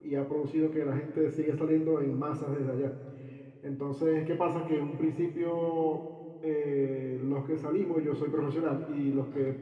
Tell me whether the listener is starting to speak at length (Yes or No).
No